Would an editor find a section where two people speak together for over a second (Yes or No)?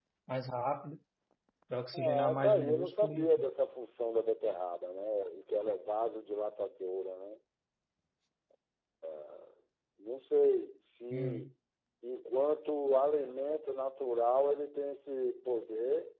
Yes